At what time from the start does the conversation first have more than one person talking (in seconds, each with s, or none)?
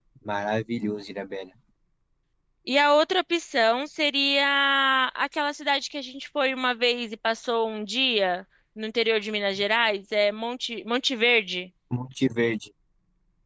none